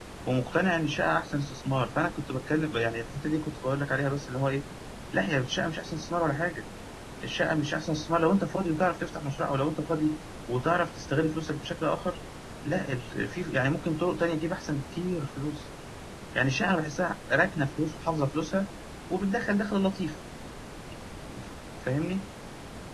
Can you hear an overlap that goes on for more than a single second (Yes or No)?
No